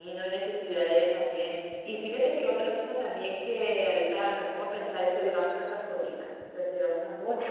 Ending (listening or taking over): listening